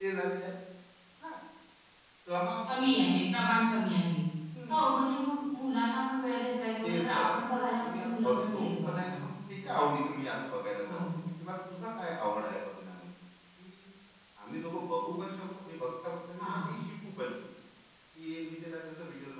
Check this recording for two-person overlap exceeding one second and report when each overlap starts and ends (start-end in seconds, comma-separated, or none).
6.8-9.3